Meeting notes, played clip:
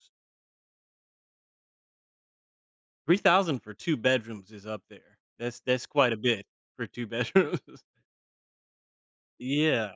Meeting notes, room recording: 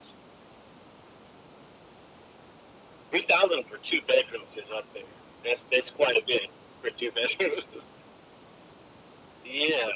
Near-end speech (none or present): none